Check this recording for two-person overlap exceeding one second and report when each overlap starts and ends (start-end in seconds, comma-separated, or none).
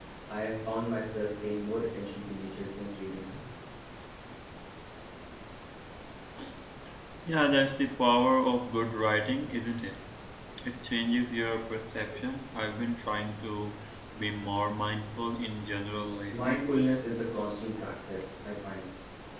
none